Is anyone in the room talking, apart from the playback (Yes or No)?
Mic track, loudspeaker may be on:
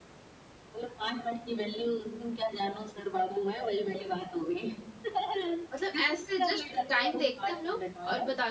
Yes